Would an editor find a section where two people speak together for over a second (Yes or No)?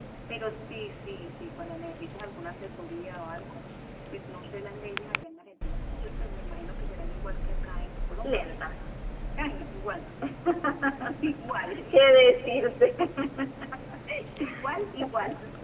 No